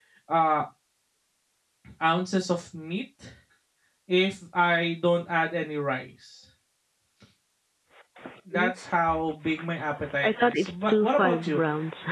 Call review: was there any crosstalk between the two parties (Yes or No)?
Yes